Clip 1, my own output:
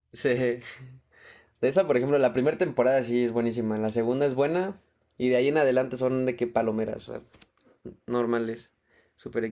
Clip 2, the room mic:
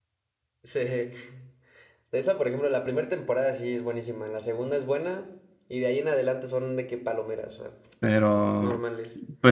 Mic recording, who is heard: both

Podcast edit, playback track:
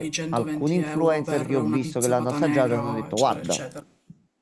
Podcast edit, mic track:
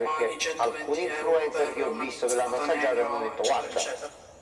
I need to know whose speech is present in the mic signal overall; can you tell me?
echo only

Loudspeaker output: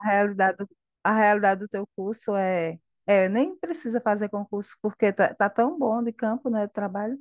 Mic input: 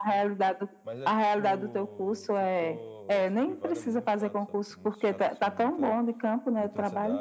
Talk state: both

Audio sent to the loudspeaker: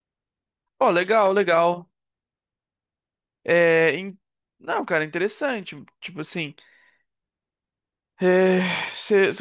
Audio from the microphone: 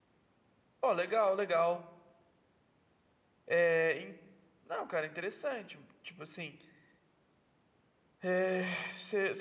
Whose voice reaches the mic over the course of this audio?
echo only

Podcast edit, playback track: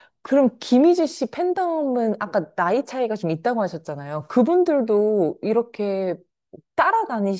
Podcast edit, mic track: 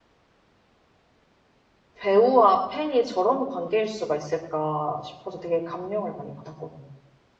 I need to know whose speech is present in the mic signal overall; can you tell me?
user only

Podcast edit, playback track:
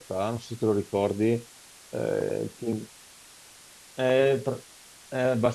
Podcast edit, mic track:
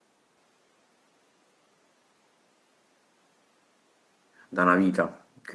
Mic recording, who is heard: user only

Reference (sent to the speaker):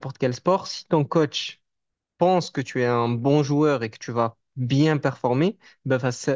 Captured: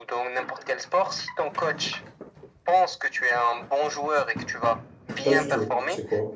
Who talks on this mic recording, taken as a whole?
both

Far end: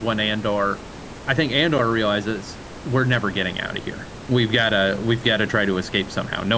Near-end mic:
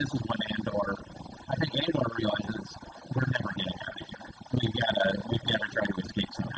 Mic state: echo only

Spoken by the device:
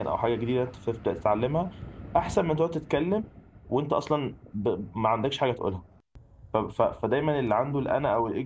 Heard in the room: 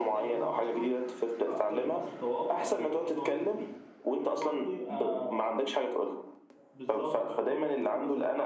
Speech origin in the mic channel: both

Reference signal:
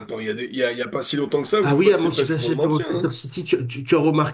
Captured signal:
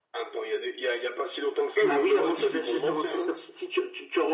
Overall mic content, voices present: both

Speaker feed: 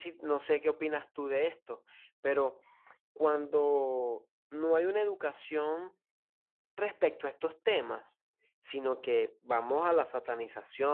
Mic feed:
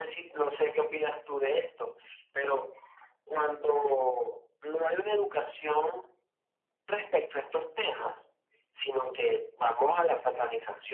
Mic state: echo only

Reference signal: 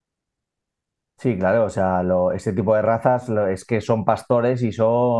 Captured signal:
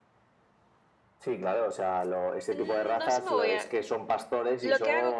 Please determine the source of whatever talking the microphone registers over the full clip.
both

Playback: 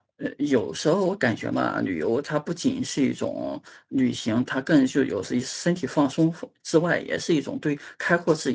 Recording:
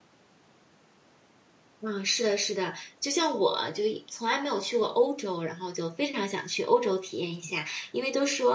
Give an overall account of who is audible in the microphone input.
user only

